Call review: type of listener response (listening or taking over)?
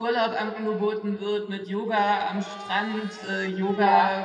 listening